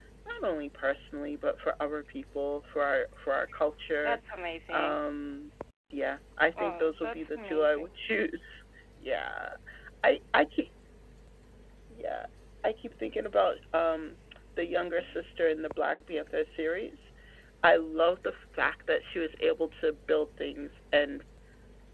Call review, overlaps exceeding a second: present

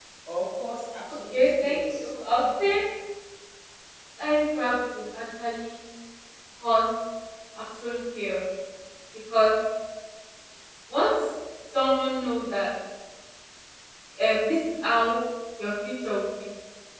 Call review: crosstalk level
present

